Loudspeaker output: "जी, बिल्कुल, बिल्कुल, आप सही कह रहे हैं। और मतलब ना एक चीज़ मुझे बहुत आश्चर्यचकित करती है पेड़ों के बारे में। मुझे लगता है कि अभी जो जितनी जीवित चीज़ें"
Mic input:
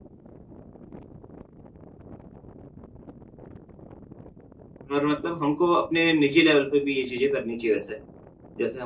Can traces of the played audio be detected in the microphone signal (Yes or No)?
No